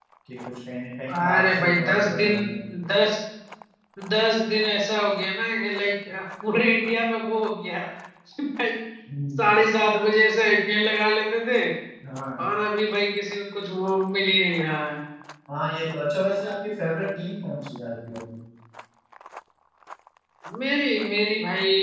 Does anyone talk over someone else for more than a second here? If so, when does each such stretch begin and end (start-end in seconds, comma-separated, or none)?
1.1-2.3